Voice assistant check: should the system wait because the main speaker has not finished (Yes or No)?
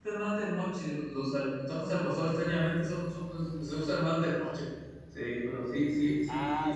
No